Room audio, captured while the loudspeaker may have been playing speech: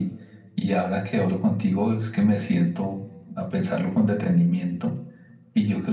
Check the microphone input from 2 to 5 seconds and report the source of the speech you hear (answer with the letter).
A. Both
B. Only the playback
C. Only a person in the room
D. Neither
B